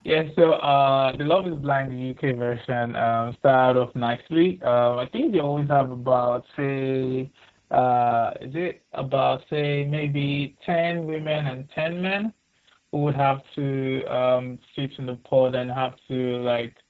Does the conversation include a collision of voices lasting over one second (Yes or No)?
No